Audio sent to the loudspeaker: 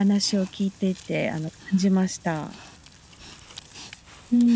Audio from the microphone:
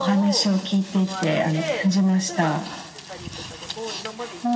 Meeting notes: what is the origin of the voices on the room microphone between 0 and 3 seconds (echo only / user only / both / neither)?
both